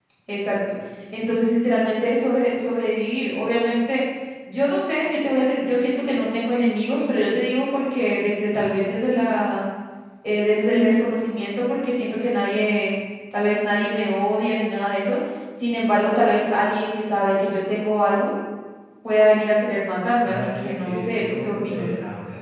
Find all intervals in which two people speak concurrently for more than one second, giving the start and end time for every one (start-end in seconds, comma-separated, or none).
20.2-21.9